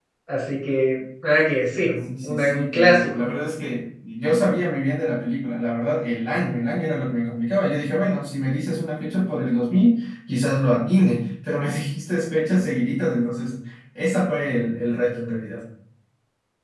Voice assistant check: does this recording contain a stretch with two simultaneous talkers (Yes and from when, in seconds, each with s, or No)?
Yes, from 2.0 s